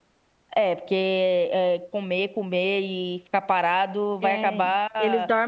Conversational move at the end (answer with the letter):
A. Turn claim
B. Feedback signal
A